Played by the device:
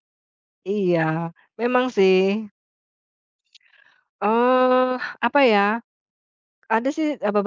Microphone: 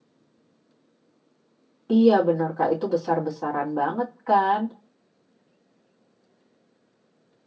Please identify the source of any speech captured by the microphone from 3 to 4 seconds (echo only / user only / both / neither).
user only